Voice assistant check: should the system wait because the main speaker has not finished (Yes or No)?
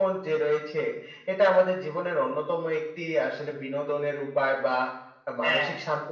Yes